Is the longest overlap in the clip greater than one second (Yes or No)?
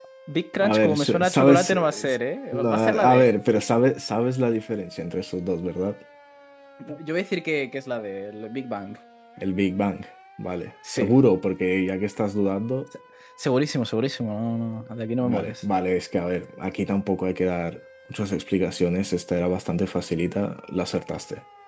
Yes